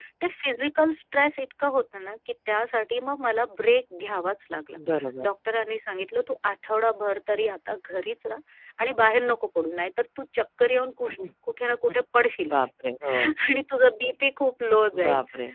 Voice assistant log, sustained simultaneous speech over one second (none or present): none